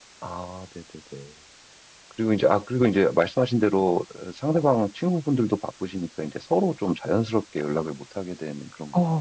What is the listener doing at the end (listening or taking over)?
taking over